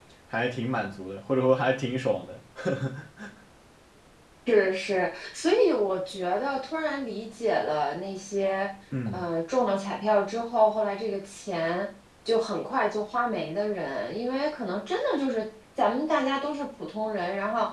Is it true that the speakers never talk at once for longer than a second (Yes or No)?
Yes